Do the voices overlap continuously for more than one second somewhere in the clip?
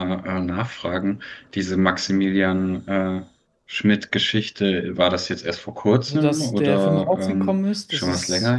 Yes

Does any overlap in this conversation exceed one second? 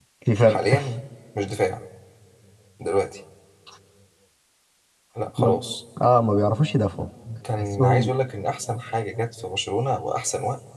No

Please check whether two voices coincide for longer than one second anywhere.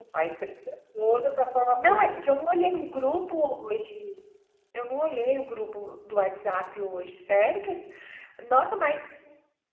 No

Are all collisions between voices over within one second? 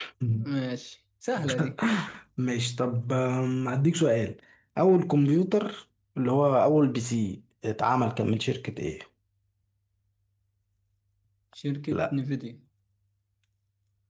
Yes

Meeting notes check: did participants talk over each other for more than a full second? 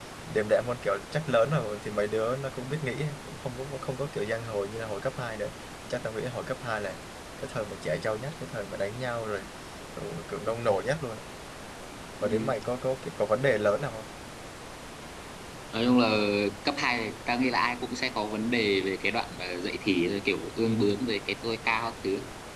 No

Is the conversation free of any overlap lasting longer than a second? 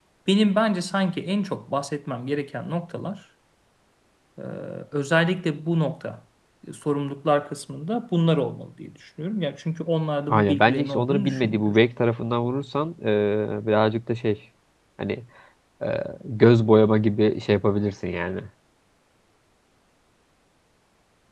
No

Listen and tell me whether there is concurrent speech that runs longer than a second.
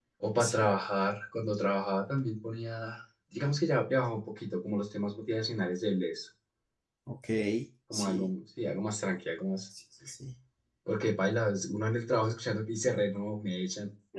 No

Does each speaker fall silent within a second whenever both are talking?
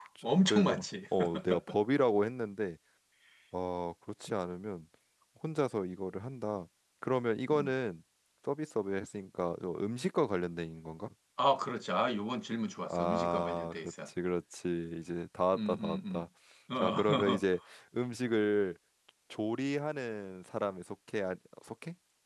No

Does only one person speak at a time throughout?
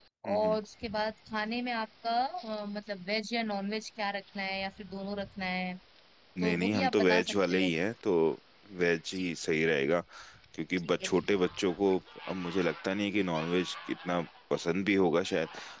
No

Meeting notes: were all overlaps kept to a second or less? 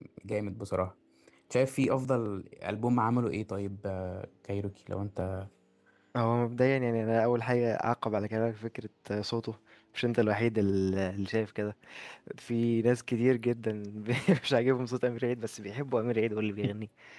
Yes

